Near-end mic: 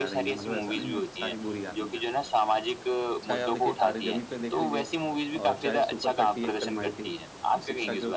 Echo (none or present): present